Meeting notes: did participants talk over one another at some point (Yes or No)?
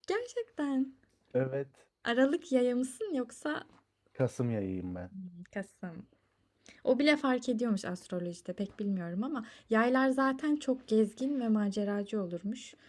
No